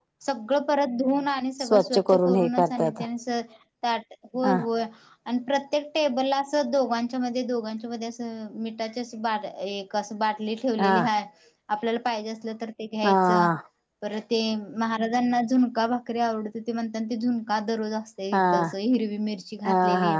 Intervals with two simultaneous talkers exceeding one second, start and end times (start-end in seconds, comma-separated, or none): 1.7-3.0